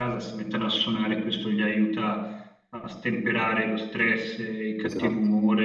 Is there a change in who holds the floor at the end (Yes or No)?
No